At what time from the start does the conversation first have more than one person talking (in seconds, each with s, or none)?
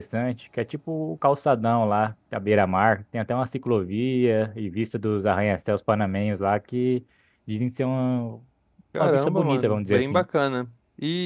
9.0 s